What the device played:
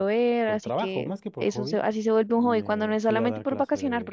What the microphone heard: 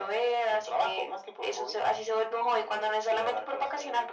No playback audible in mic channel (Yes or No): No